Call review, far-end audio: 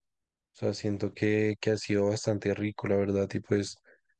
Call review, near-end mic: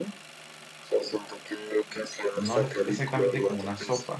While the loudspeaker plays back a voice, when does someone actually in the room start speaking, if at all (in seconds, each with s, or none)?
2.3 s